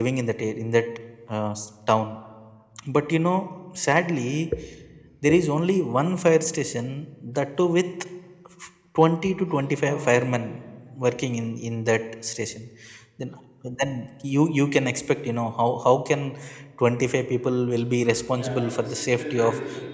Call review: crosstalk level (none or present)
present